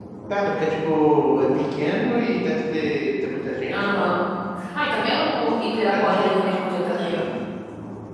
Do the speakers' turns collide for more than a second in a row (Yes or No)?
Yes